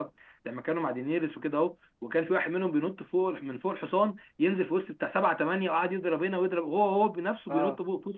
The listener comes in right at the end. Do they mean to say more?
Yes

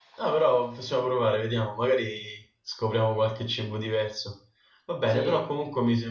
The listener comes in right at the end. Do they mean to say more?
No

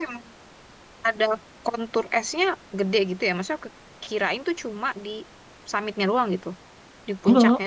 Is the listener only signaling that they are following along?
Yes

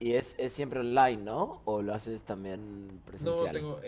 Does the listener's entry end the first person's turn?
Yes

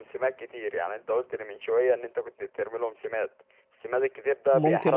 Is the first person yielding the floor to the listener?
Yes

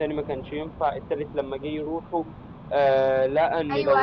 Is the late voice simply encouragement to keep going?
No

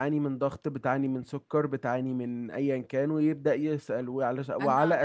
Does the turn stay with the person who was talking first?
Yes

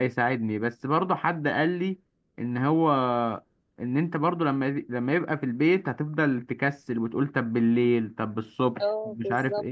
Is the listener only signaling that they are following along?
No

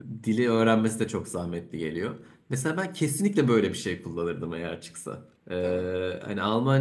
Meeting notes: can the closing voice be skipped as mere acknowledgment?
Yes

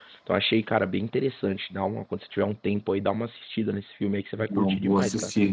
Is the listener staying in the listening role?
No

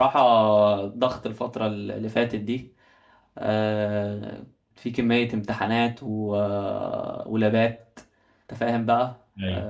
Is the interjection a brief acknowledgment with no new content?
Yes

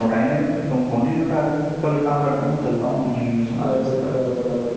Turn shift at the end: Yes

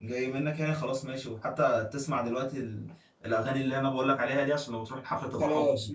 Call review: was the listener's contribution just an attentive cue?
No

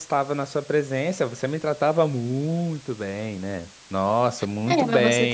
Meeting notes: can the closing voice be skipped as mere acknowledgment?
No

